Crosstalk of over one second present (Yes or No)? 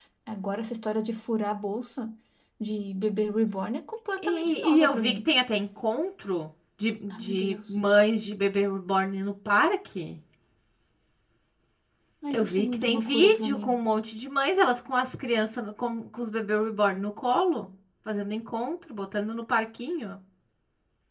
Yes